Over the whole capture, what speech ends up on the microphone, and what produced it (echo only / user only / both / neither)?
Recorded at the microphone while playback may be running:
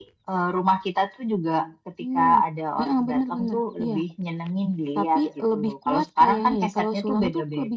echo only